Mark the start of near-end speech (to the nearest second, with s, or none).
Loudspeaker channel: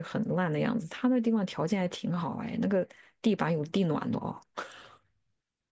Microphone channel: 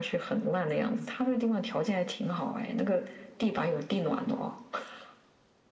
none